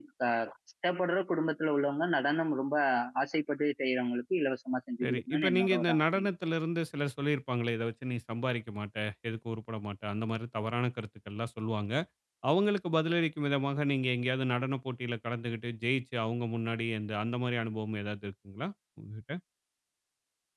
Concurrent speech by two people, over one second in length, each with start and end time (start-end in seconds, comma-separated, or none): 5.0-6.2